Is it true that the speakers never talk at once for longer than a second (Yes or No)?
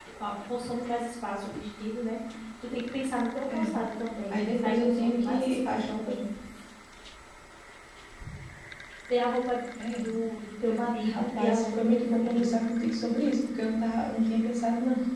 No